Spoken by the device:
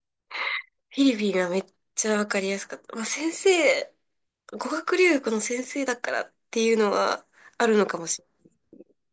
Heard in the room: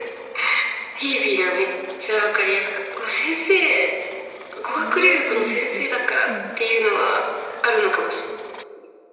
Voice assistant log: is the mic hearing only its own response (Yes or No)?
No